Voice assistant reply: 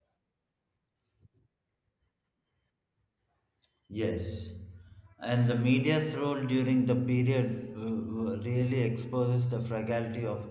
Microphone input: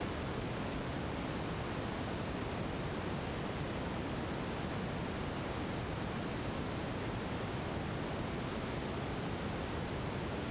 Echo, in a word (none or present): none